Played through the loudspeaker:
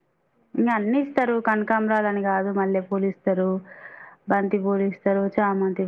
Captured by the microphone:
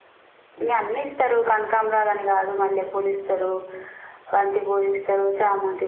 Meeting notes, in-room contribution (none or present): none